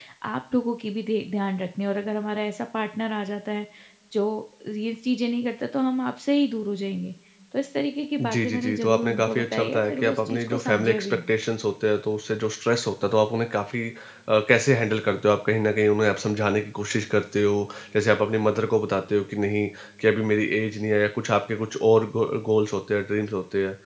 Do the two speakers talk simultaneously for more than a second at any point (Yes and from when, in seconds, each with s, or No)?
Yes, from 8.2 s